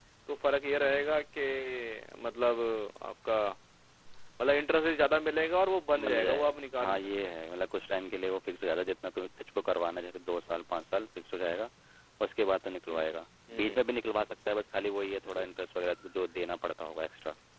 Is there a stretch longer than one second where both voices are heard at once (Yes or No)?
Yes